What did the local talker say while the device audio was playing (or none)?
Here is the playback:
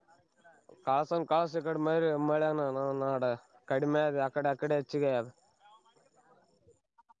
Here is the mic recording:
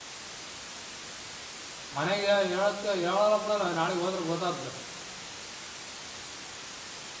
ಮನೆಗೆ ಹೇಳತ್ ಹೇಳಲ್ಲ ಬಿಡಲ್ಲ ನಾಳಗ್ ಹೋದ್ರೆ ಗೊತ್ತಾದ್ದು